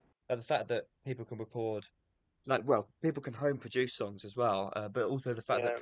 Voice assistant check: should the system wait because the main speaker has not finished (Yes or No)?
Yes